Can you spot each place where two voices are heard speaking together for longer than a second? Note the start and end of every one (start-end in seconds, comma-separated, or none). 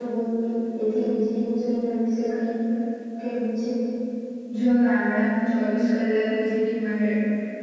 none